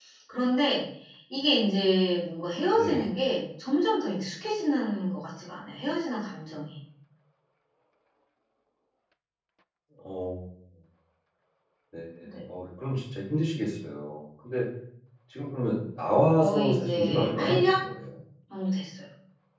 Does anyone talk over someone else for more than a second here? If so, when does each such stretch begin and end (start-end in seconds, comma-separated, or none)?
16.4-17.8